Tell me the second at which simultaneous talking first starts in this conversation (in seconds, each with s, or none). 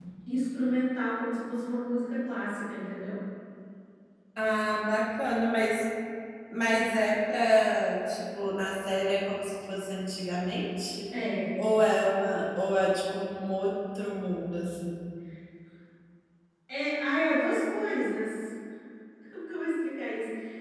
none